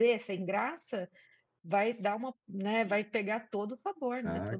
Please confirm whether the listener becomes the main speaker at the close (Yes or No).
Yes